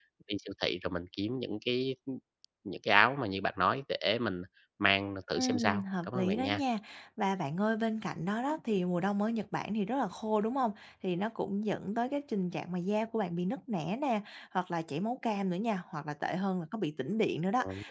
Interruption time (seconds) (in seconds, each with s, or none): 5.4 s